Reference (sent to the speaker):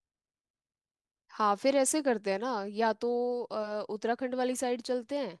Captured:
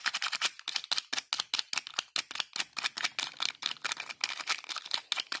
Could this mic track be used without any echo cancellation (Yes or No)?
Yes